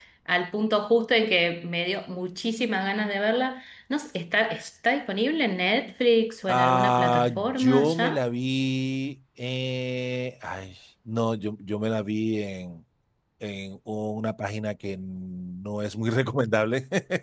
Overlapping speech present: Yes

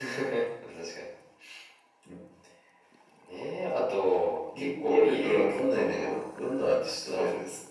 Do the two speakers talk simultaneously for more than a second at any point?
Yes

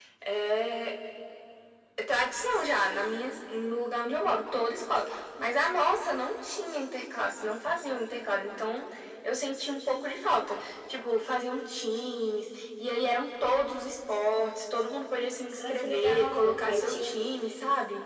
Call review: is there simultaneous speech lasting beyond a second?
Yes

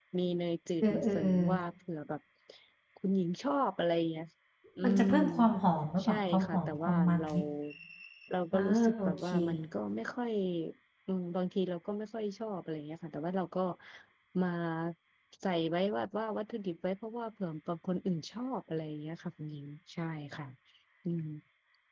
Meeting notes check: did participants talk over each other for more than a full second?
Yes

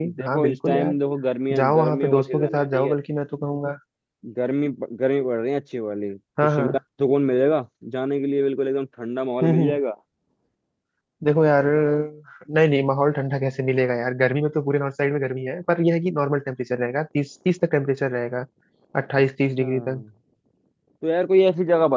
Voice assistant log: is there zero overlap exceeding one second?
No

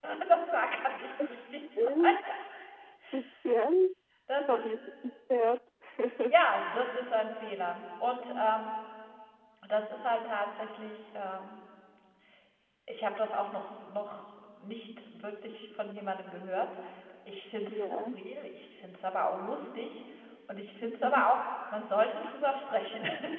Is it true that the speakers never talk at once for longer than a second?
Yes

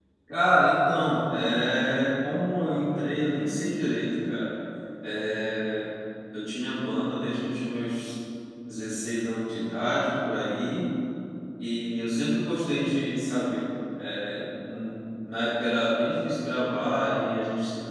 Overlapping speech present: No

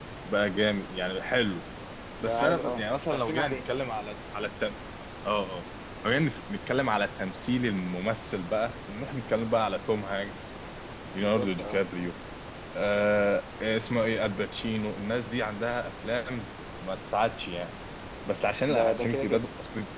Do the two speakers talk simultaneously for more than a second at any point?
Yes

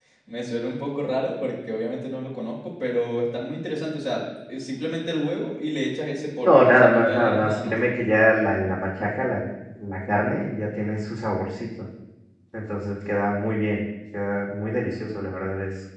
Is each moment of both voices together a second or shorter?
No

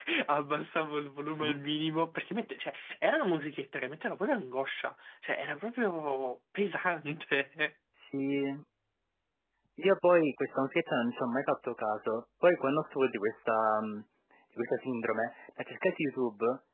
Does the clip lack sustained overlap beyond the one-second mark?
Yes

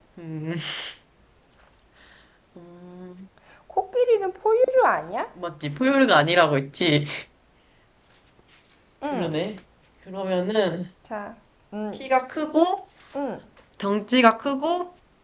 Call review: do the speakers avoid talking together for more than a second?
Yes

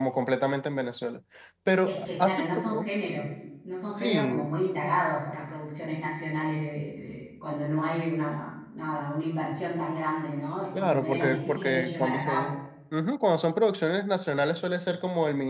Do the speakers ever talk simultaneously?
Yes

